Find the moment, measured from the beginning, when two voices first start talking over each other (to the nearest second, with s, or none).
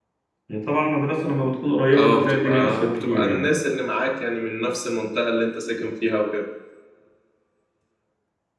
2 s